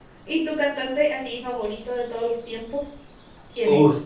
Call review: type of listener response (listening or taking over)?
taking over